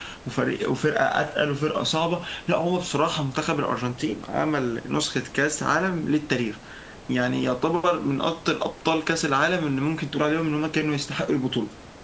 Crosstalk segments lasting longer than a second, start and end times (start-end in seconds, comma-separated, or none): none